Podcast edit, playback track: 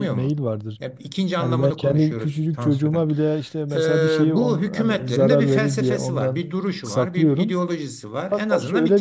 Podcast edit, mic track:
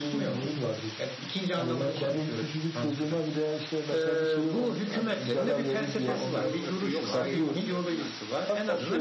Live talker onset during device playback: 6 s

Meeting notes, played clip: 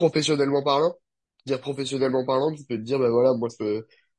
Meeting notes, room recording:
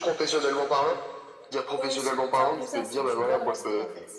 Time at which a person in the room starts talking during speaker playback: 2 s

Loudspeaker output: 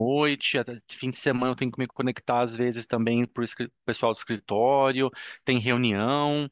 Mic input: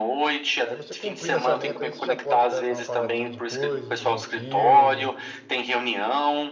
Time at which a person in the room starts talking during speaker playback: 1 s

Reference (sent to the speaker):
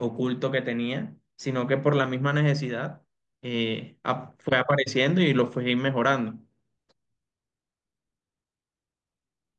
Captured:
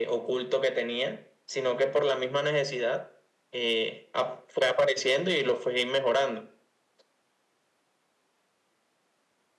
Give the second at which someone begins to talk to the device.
none

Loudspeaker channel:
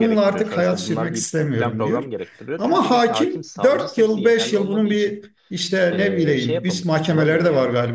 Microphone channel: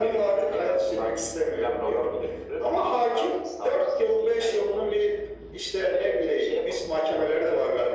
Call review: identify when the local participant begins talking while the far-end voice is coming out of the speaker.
none

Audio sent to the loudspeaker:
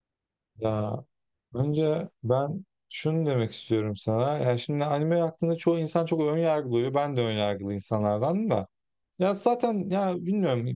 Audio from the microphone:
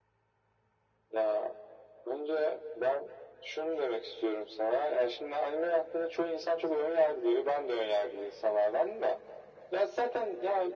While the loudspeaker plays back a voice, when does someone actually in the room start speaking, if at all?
none

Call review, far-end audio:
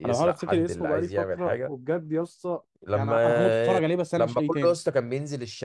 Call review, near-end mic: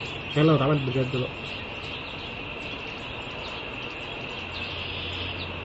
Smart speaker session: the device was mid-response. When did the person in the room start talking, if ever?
0 s

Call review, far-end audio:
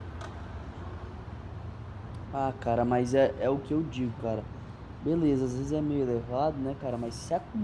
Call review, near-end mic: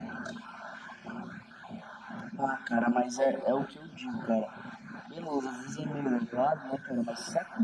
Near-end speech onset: none

